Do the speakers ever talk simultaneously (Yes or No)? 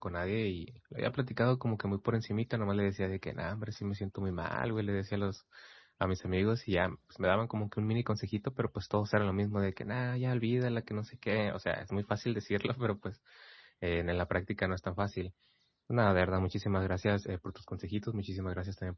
No